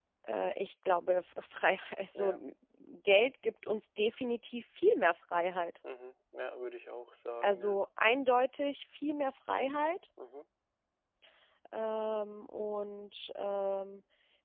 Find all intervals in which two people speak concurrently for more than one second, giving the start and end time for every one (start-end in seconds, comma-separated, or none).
none